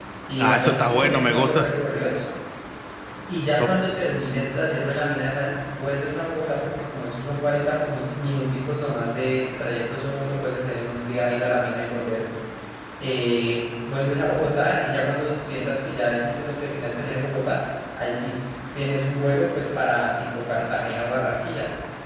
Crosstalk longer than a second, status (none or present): present